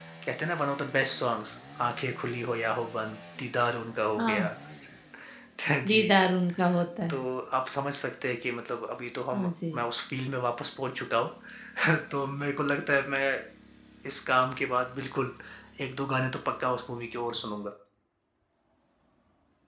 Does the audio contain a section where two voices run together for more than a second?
No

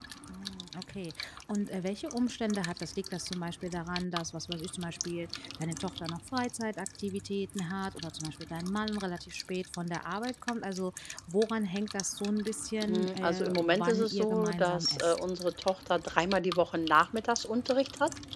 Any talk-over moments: Yes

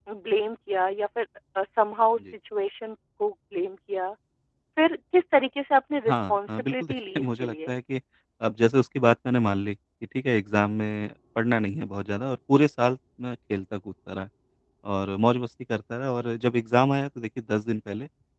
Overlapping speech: Yes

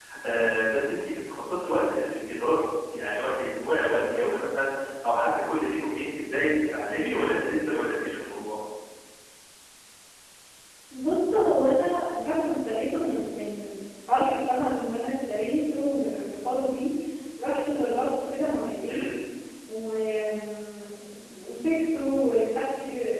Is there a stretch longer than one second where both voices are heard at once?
No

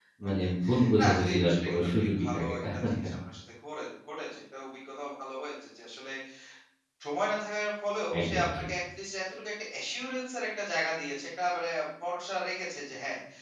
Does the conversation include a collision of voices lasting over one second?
Yes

